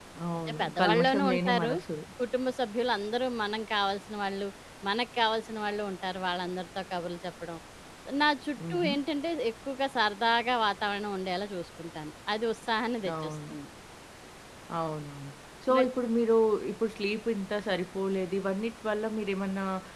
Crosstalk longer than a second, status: present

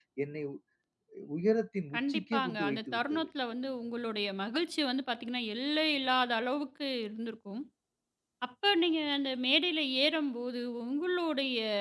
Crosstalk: present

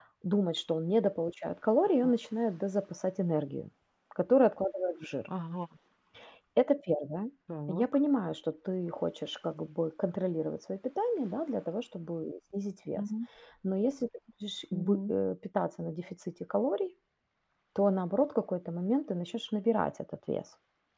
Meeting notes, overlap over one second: none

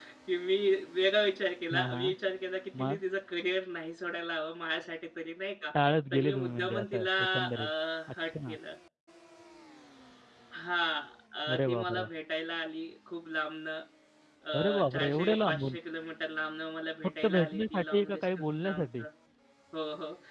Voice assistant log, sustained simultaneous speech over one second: present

